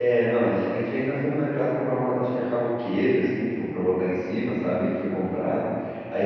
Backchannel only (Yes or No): Yes